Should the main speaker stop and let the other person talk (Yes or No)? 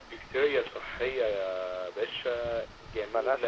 No